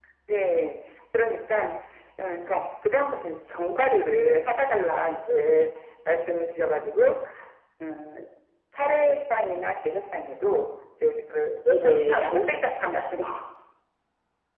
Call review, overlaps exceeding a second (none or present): present